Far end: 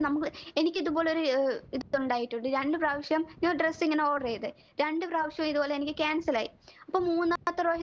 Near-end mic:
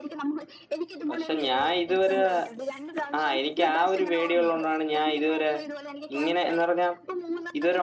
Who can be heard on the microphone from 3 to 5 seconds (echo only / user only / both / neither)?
both